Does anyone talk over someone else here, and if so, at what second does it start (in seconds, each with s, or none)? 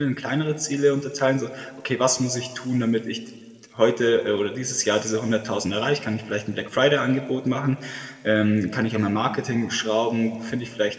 none